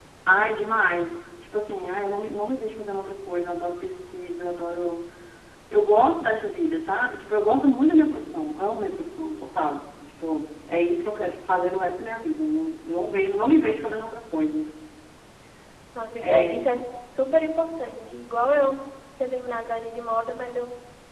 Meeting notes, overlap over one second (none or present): none